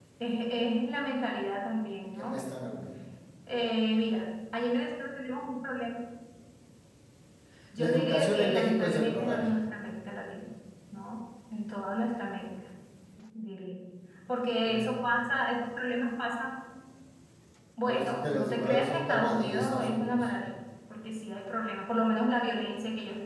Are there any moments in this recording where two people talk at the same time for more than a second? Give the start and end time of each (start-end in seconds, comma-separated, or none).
7.8-9.5, 17.8-20.3